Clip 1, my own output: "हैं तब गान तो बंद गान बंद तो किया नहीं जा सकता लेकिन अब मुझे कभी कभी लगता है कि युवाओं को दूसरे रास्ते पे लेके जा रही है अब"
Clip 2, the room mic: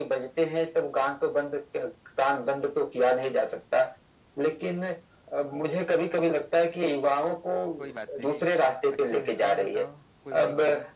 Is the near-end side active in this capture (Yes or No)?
Yes